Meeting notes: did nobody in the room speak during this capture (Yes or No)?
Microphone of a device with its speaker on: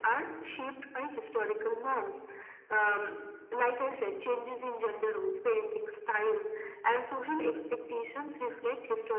Yes